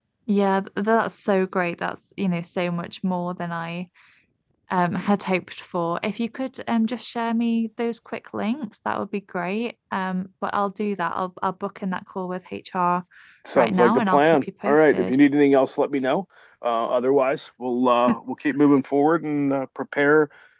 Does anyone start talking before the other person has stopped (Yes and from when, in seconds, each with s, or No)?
Yes, from 13.6 s